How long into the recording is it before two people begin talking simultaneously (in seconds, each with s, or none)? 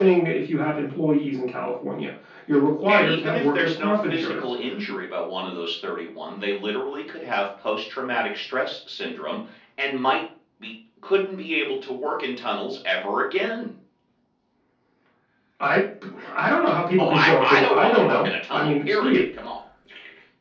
2.9 s